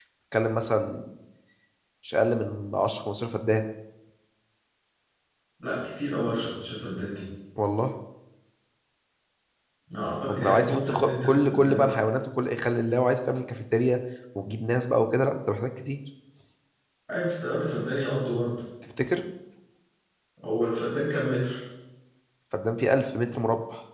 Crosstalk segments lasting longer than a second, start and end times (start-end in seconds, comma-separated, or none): 10.3-11.9